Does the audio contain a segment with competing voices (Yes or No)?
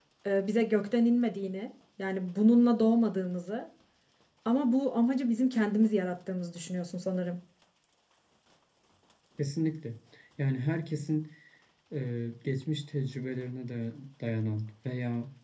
No